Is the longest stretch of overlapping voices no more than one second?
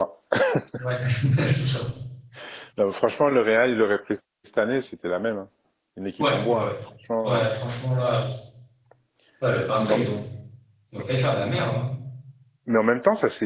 Yes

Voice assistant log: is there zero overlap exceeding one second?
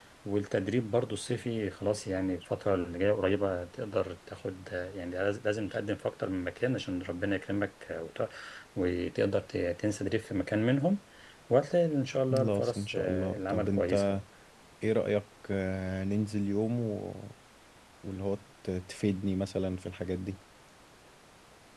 No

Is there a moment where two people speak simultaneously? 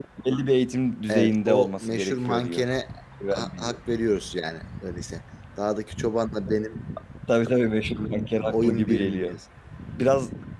Yes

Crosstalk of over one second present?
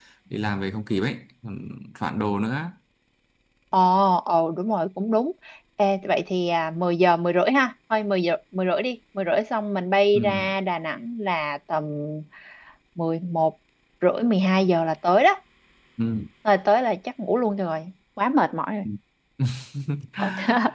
No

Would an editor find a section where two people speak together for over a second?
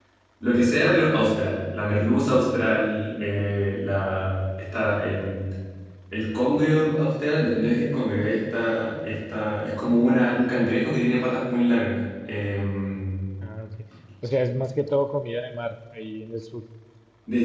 No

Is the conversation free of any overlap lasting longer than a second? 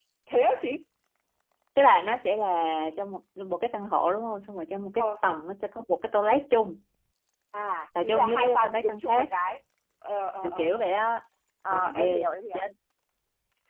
No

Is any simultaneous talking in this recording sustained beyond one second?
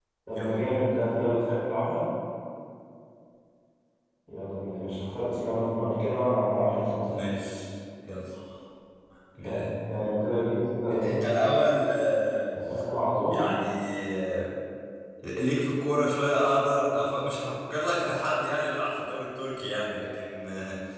No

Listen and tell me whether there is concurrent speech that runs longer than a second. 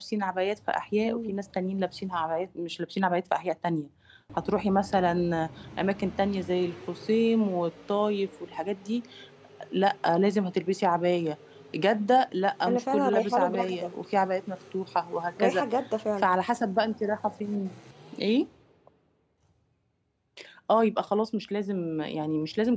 Yes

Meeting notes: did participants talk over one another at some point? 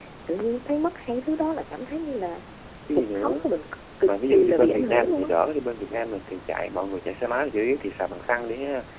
Yes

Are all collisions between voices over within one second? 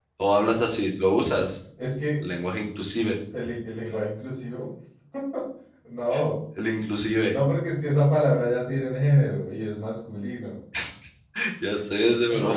Yes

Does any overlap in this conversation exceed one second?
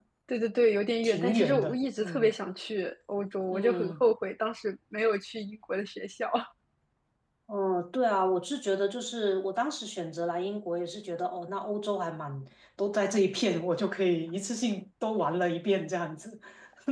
Yes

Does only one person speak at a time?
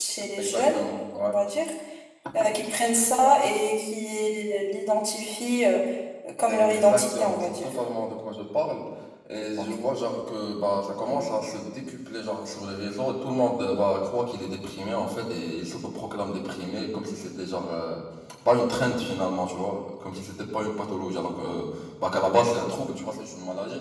No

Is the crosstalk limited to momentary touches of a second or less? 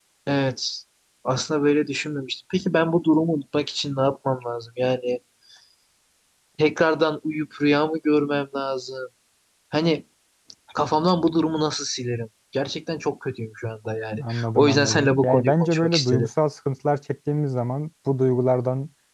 No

